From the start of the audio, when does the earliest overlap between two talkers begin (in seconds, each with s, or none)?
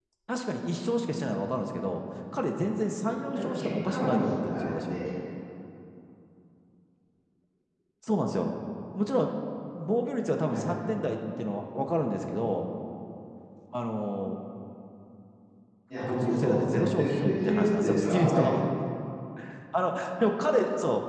3.3 s